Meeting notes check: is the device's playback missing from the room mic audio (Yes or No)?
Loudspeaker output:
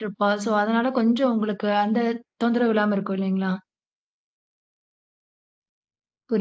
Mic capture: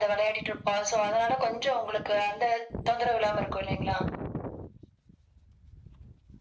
No